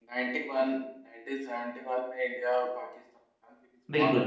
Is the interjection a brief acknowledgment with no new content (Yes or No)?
No